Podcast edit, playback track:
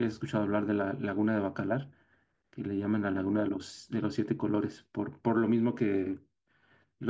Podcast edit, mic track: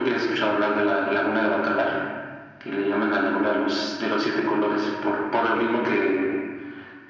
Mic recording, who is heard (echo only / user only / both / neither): echo only